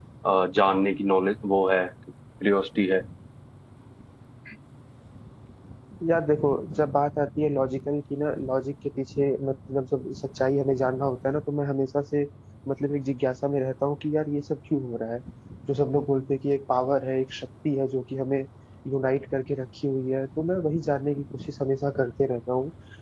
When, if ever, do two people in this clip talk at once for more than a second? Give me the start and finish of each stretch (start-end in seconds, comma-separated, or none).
none